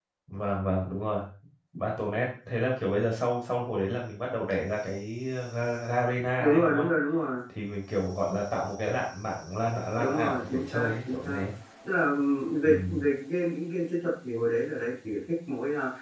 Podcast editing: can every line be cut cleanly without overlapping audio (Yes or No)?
No